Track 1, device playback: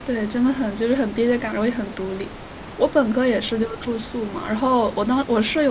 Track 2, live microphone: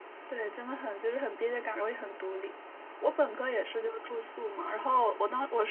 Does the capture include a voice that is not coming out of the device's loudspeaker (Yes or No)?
No